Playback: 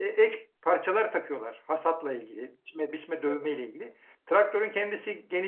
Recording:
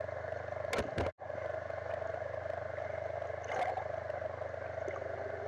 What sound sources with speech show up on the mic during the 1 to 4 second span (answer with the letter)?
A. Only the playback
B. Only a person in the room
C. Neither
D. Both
C